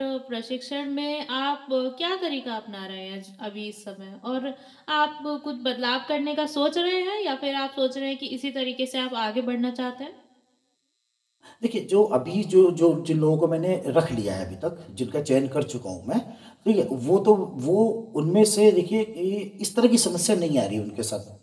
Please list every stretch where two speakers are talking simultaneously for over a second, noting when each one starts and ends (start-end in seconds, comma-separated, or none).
none